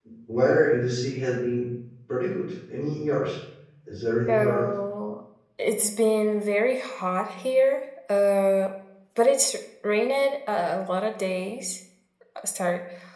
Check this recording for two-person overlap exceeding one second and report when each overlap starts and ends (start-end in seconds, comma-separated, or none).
none